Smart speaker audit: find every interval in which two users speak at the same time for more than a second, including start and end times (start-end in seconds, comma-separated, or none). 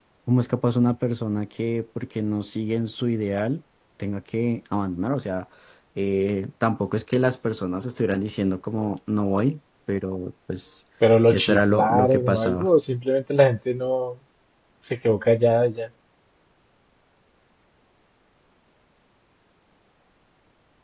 11.3-12.7